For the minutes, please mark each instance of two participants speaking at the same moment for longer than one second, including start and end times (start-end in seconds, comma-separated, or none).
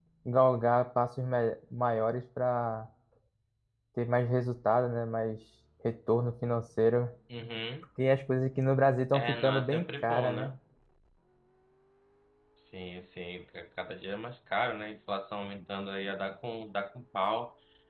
9.1-10.5